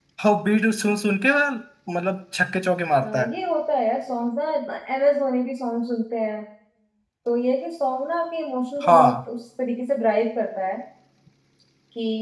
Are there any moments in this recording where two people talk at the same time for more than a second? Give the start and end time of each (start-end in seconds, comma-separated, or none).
none